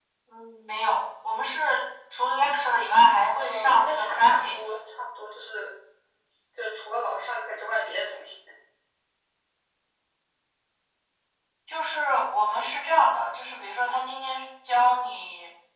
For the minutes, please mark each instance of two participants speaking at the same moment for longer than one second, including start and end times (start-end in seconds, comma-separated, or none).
3.3-4.8